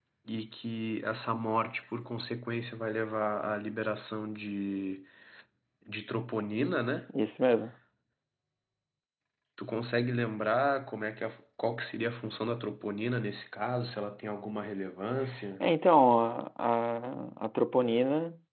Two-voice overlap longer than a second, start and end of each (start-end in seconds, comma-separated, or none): none